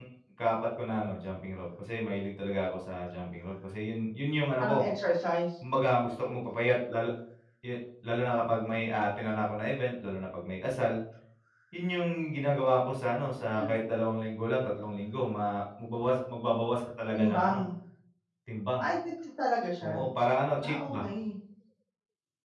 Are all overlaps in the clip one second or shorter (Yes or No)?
Yes